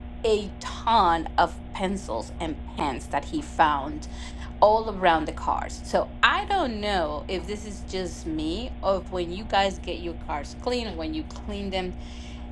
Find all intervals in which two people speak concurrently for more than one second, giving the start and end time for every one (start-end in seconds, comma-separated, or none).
none